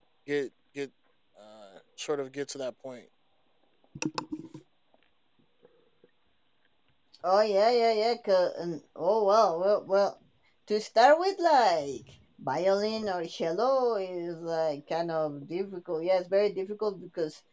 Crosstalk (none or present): none